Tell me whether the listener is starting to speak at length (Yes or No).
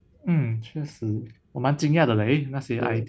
No